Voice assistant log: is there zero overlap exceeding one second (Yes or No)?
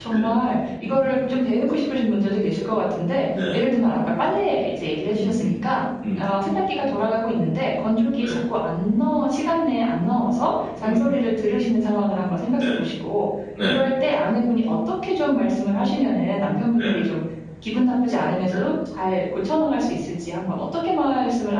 Yes